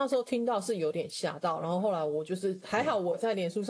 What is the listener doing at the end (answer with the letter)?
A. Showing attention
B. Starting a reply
A